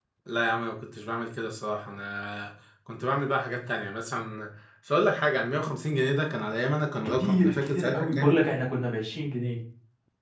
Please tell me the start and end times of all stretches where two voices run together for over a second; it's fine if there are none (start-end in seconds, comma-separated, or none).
7.2-8.4